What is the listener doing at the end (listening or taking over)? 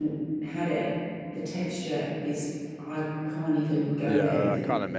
taking over